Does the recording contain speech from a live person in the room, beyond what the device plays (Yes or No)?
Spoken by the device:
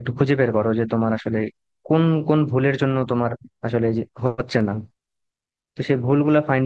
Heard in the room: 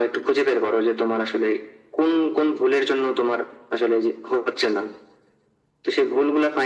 No